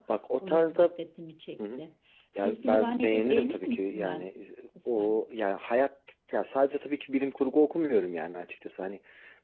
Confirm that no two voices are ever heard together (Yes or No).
No